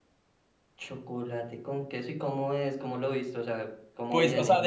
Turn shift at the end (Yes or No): Yes